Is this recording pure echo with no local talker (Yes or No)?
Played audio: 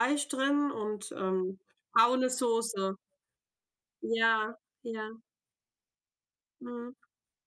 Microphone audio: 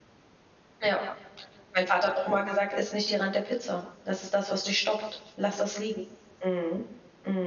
No